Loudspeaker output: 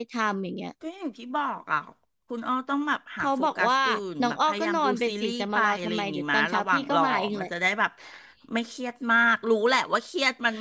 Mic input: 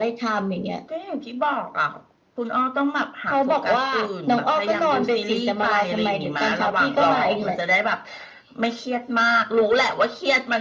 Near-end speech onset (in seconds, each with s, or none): none